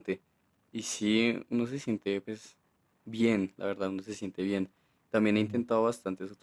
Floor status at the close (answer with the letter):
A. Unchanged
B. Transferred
A